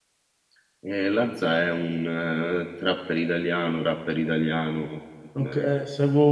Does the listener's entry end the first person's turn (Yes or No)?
Yes